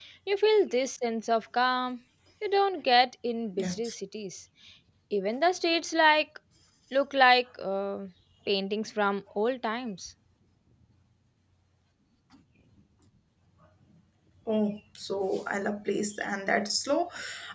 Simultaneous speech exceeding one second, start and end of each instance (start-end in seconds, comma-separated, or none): none